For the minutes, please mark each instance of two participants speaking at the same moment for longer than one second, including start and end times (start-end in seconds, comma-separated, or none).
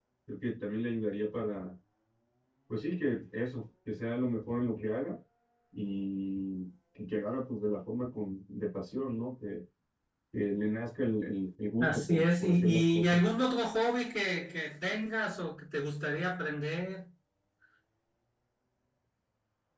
11.8-13.2